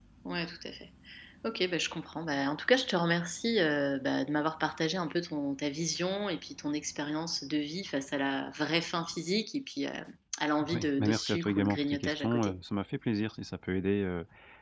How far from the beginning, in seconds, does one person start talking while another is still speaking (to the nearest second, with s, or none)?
11 s